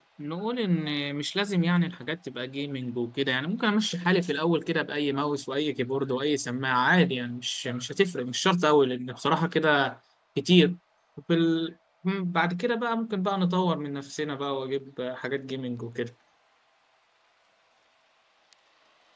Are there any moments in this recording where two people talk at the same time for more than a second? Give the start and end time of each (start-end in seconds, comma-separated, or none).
none